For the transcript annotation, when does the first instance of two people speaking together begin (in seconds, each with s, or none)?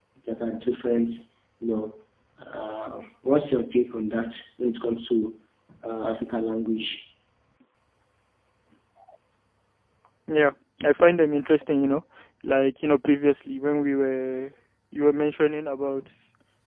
none